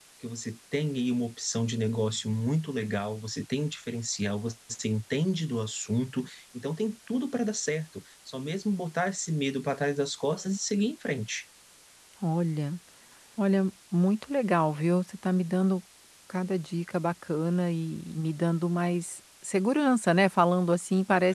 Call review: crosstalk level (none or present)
none